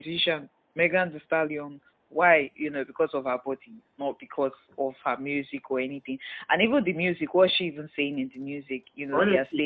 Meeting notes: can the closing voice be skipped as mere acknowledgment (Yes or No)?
Yes